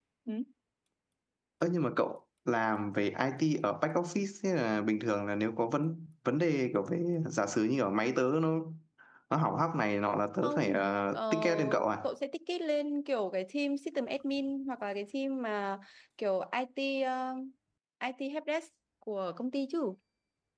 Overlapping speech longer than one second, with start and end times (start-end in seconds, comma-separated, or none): 10.4-11.9